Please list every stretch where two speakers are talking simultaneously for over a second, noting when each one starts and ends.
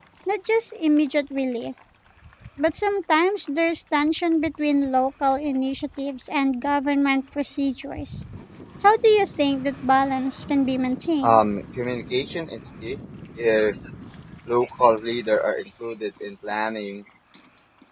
none

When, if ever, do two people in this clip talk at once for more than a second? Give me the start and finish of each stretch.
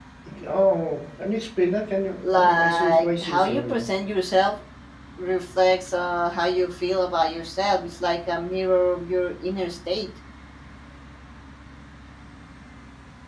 2.2-3.9

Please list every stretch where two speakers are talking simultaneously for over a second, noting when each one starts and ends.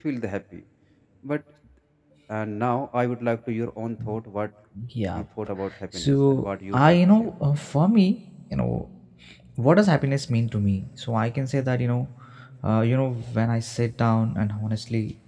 5.9-7.3

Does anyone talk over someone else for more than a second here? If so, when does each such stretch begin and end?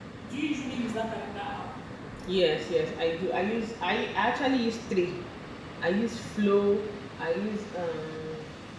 none

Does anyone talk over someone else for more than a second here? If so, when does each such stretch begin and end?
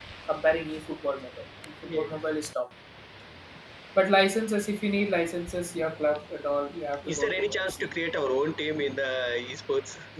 7.1-8.4

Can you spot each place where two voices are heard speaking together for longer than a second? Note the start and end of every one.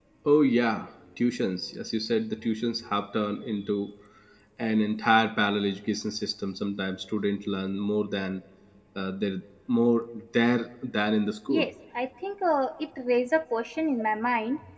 none

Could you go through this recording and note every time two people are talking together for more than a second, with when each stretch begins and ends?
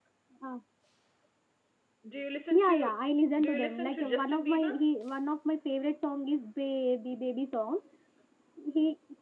3.4-4.8

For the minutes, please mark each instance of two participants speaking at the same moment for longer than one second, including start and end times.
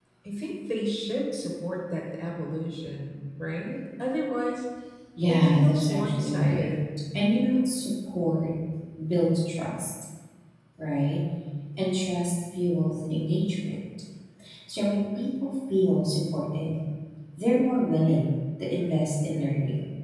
5.3-6.7

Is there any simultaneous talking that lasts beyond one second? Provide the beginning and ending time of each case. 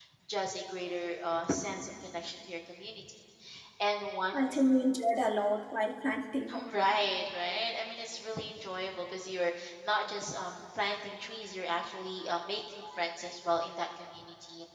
none

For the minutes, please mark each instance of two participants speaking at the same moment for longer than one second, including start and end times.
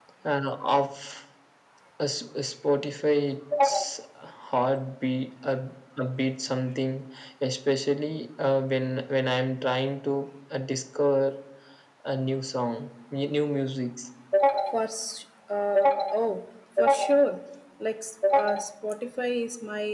none

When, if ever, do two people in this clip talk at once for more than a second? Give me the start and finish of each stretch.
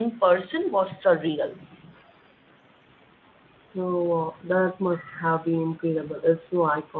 none

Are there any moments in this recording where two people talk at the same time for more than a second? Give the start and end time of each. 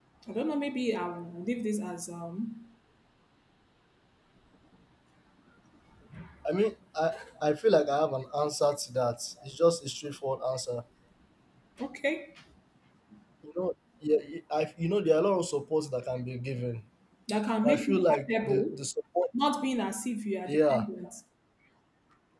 17.6-18.9

